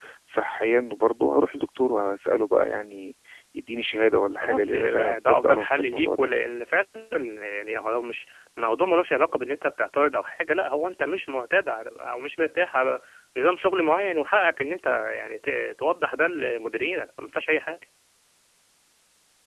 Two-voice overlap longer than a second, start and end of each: 4.4-6.3

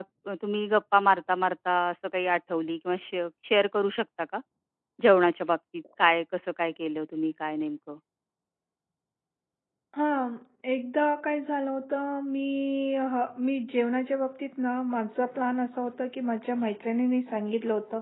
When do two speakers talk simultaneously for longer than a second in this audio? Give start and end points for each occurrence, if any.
none

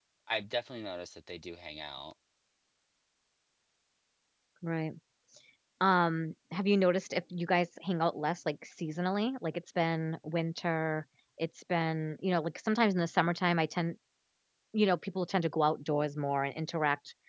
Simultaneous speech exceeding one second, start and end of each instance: none

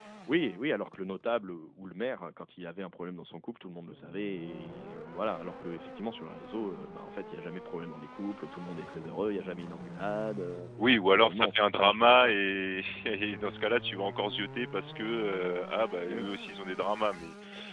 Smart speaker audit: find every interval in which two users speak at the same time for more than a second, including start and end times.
11.1-12.4

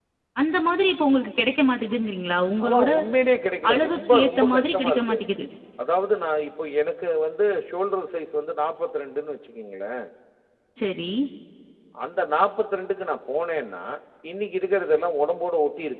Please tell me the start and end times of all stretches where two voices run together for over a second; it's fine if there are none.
3.7-5.2

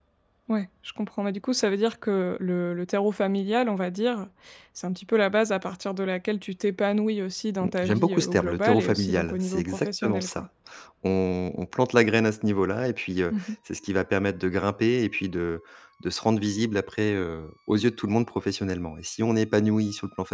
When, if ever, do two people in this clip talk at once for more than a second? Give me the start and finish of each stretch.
7.6-10.4

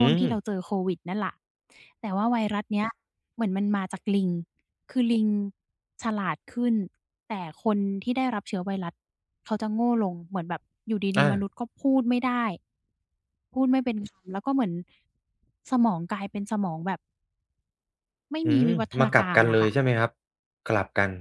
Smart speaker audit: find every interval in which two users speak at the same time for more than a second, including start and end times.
18.4-19.7

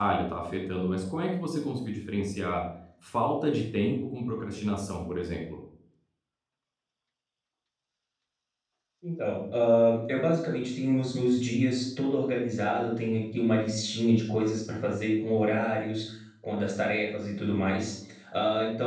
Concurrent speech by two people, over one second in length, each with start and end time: none

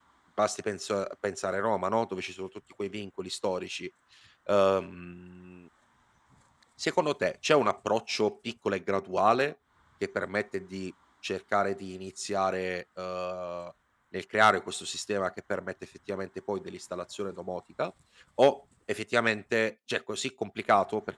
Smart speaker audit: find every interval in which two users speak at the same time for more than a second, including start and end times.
none

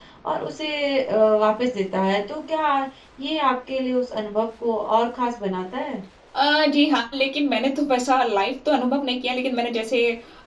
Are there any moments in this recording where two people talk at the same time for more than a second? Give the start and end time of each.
none

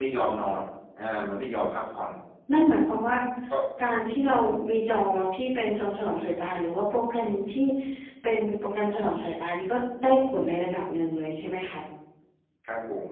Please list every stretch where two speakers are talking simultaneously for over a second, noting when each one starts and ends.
none

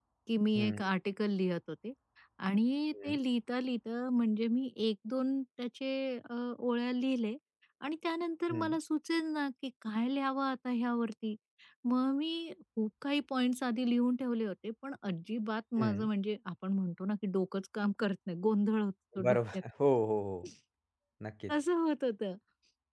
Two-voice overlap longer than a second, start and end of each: none

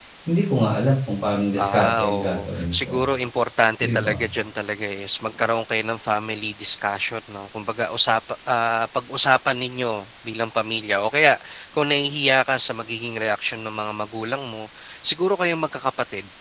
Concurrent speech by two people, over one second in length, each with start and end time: 1.6-3.0

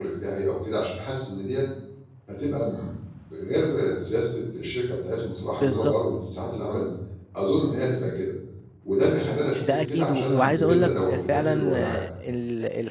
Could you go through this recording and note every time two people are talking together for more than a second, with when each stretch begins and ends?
9.7-12.0

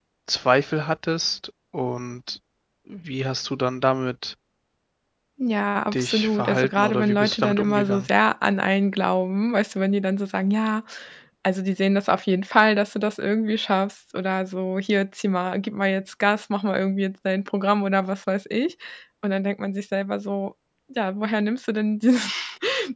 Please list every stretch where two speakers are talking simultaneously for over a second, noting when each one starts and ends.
5.9-8.1

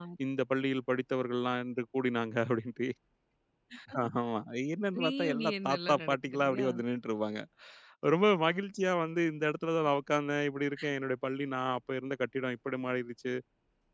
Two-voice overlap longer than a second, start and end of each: 5.0-6.7

